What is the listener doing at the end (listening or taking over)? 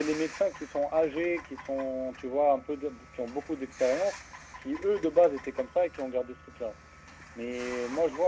listening